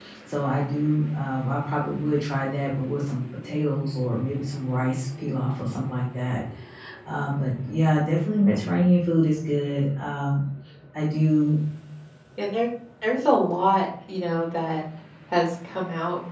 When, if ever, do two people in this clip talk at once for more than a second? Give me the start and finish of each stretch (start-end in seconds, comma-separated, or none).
none